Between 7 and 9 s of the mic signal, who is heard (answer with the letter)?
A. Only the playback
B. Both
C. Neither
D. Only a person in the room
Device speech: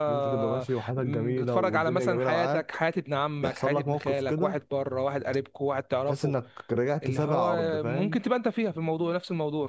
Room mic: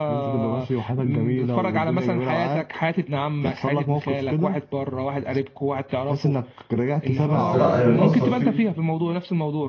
B